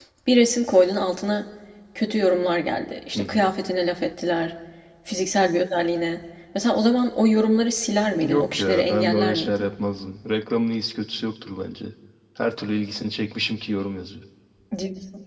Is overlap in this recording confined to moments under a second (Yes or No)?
No